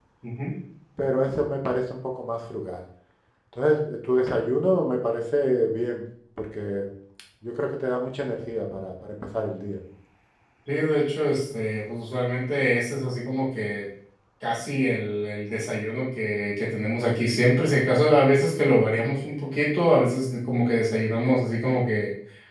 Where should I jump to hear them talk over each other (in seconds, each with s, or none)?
none